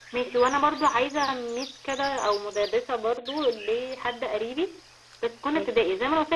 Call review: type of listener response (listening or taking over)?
listening